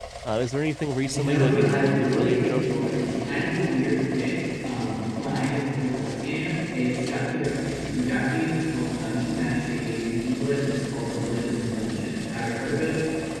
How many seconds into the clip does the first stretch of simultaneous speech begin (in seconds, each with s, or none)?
1.0 s